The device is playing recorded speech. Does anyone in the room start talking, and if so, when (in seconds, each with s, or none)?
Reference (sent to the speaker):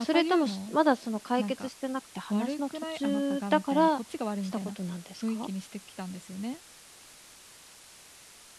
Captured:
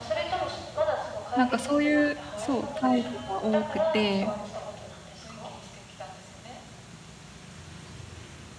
1.4 s